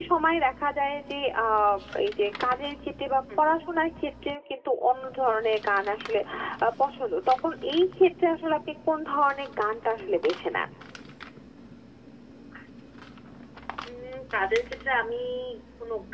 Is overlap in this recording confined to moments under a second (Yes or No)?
Yes